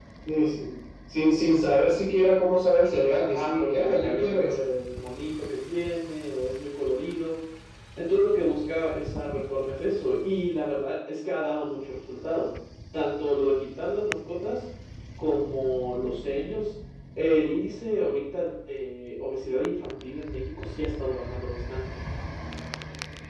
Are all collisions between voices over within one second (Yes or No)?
No